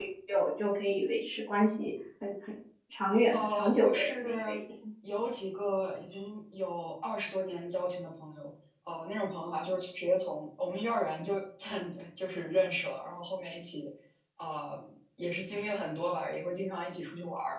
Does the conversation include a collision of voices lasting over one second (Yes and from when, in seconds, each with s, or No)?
Yes, from 3.3 s